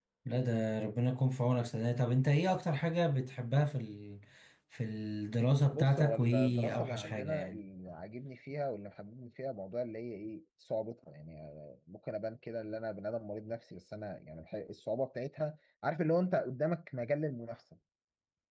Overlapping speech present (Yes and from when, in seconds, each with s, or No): Yes, from 5.7 s